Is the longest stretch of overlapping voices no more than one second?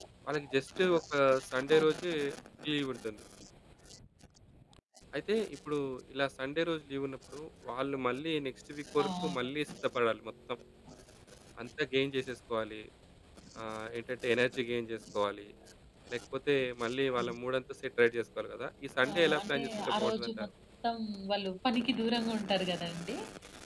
No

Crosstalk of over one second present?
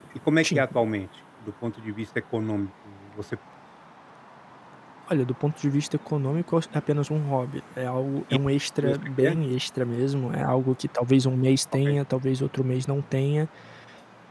No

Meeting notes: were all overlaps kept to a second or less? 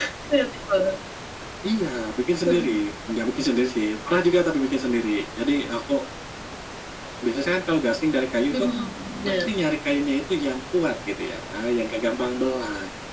Yes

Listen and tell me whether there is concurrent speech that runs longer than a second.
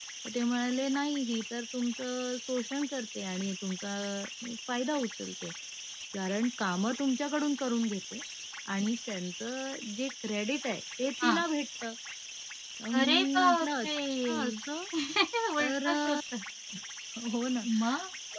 Yes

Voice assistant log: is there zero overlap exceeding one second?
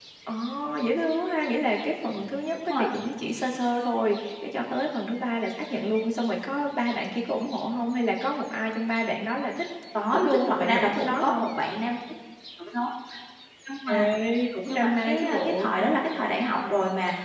No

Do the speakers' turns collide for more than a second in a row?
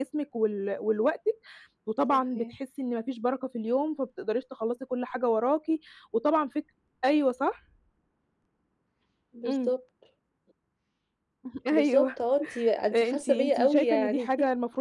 Yes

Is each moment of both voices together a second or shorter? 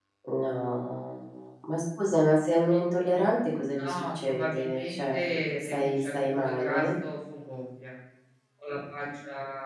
No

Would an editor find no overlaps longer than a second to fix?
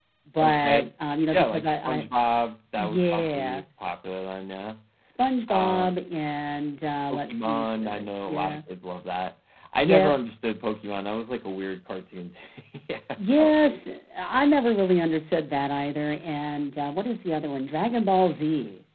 No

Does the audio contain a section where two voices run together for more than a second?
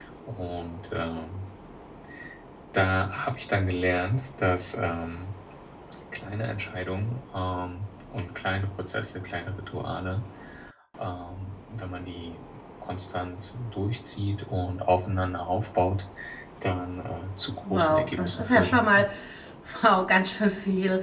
Yes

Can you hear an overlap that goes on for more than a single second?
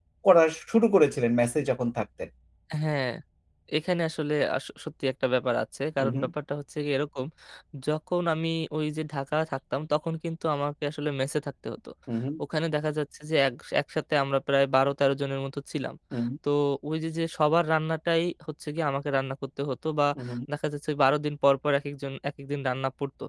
No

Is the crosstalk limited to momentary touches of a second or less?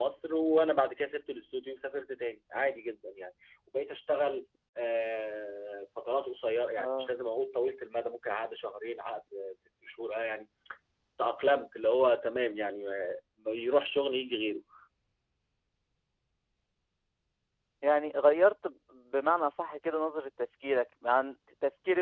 Yes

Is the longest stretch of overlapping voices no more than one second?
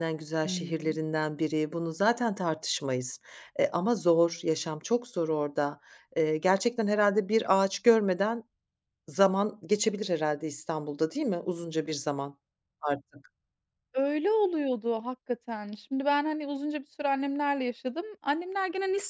Yes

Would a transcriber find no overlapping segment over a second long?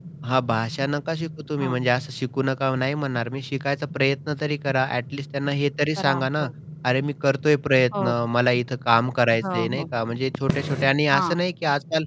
Yes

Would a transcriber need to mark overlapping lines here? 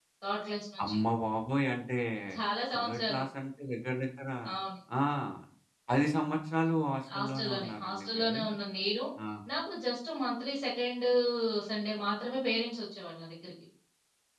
Yes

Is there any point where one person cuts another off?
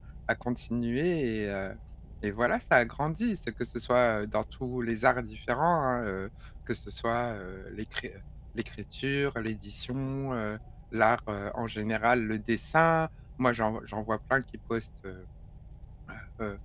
No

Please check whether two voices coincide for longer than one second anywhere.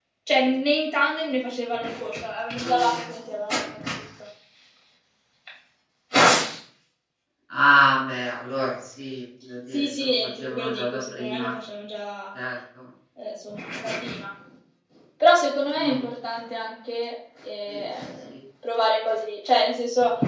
Yes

